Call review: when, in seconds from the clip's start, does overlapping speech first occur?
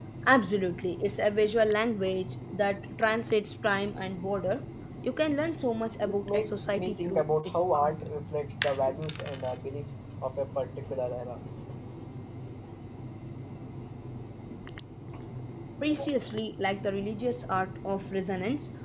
6.0 s

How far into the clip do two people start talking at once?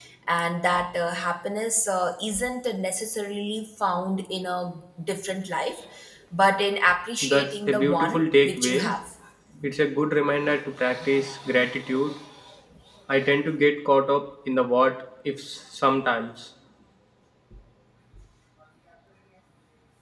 7.2 s

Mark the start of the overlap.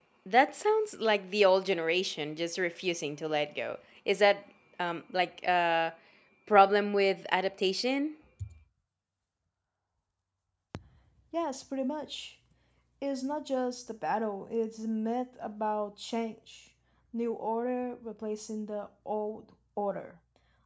none

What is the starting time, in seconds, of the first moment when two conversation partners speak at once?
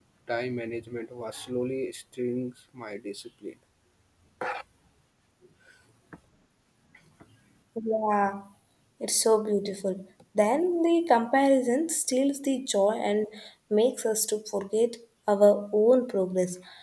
none

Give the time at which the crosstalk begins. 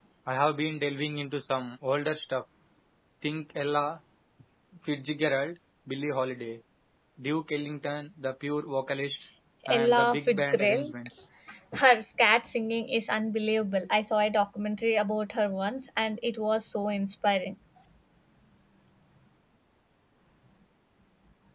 9.7 s

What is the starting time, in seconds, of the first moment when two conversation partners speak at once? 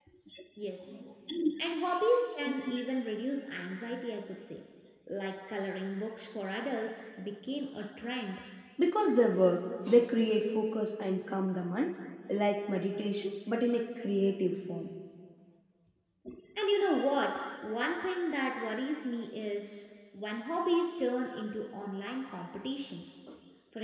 none

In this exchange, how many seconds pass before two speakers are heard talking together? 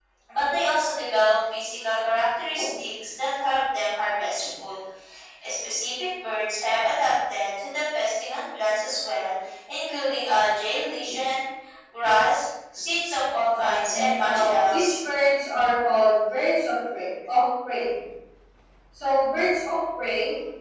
13.5 s

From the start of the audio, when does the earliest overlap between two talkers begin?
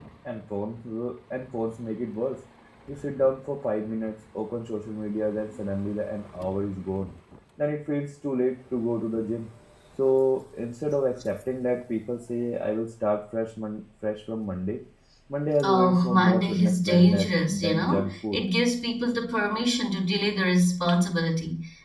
15.6 s

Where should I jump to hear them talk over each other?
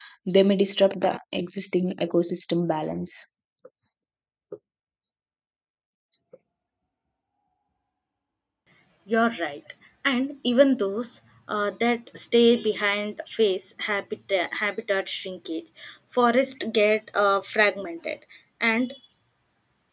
none

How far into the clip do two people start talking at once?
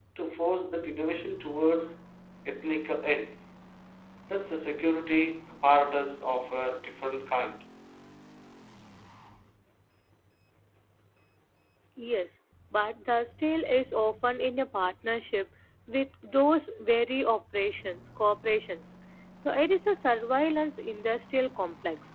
none

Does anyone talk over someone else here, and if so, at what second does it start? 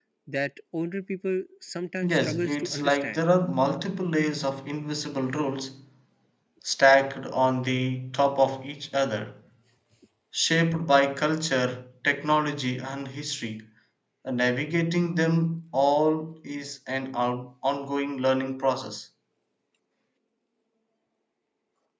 2.0 s

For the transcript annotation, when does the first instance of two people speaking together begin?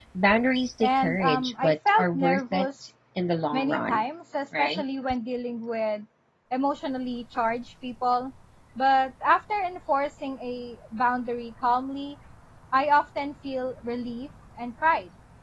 0.8 s

